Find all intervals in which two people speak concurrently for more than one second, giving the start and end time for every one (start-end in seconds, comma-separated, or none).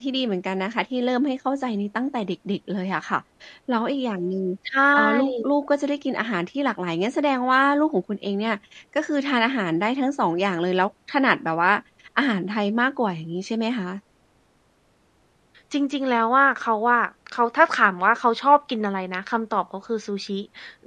none